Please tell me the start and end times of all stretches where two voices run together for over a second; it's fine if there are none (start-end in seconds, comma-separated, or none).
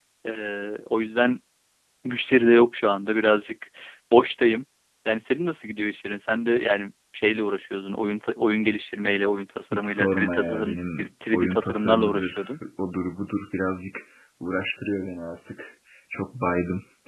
9.7-12.5